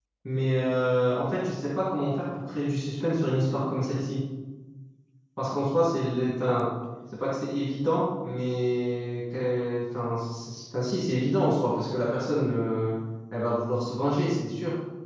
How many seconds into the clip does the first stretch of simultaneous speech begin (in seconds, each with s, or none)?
none